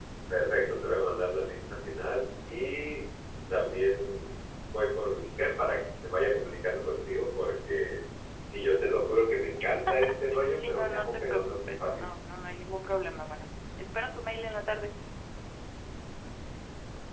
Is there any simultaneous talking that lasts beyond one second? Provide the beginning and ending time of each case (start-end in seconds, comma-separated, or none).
10.5-12.0